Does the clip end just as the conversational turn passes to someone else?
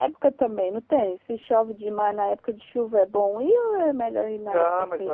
Yes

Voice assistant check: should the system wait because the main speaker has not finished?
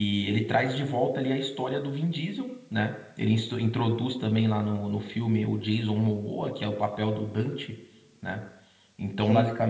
Yes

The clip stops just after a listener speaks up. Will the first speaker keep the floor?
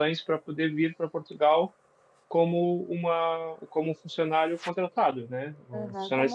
No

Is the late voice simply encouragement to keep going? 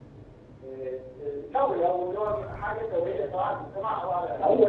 No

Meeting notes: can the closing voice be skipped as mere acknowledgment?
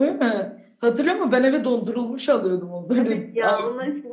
No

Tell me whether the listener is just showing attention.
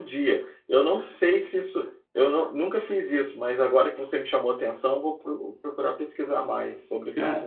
No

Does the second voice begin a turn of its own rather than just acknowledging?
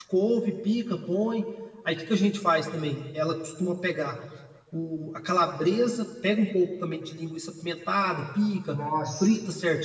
No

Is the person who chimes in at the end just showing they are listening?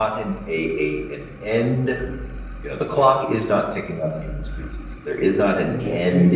No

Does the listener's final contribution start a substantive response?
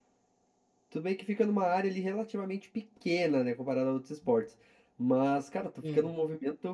No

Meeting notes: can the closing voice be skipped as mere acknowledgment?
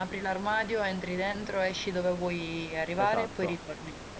No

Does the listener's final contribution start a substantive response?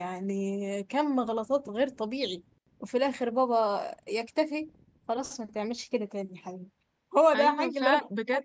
Yes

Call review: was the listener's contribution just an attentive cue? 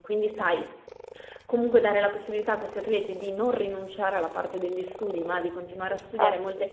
Yes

